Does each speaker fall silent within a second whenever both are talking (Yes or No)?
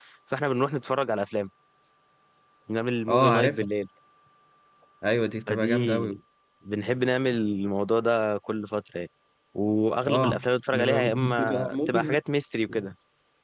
No